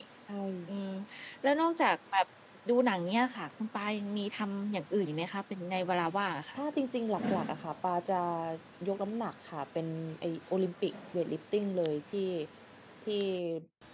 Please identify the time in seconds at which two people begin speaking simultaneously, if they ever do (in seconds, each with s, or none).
none